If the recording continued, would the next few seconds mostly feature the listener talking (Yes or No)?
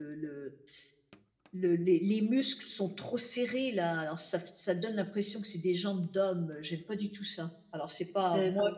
Yes